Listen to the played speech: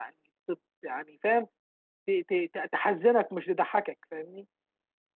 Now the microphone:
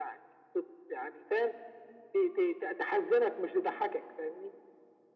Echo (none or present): present